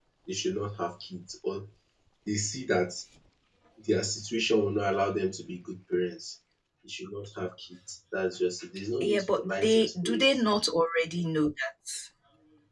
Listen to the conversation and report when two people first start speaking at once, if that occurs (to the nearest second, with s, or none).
9 s